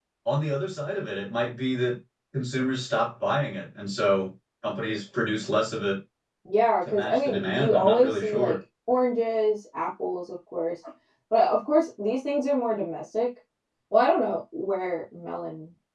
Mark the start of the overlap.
7 s

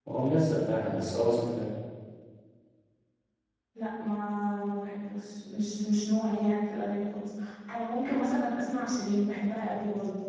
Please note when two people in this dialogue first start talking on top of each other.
none

